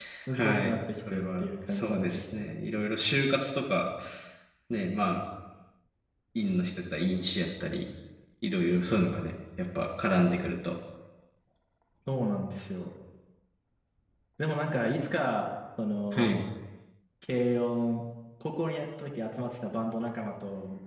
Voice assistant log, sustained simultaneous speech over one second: present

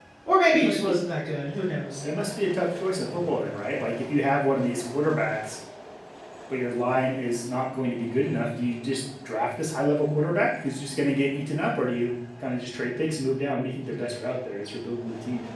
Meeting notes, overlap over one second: none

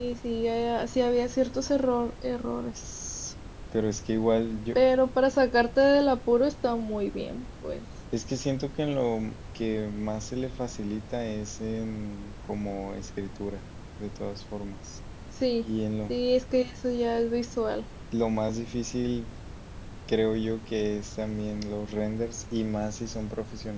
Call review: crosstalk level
none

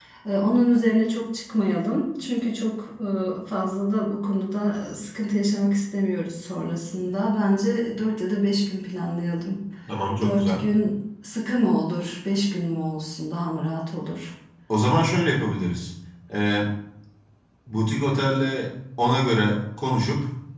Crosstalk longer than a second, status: none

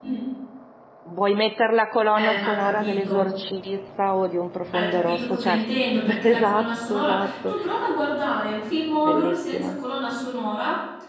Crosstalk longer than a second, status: present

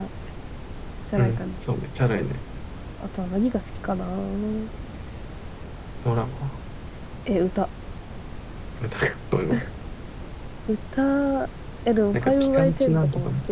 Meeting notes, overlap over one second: present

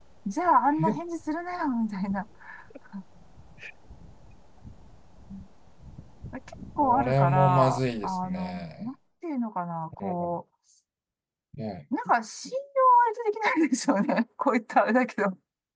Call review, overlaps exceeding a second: present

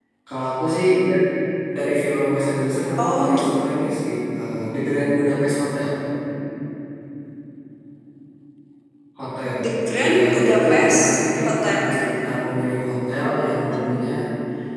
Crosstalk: present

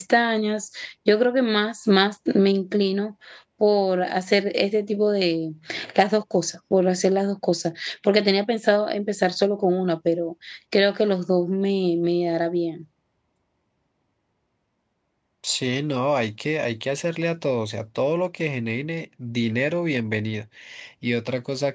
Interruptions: none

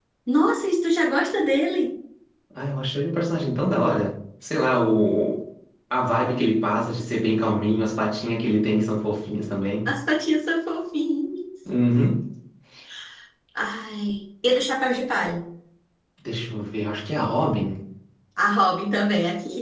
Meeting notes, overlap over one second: none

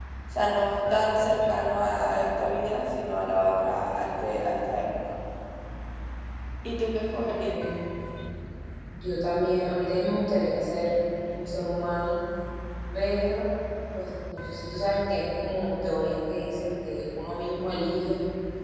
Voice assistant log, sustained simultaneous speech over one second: none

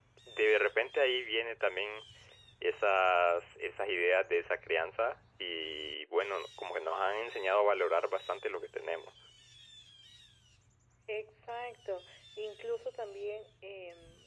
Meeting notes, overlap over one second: none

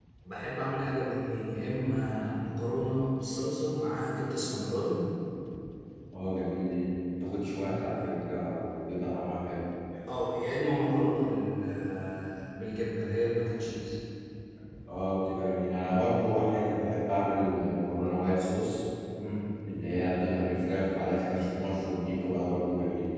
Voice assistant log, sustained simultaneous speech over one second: none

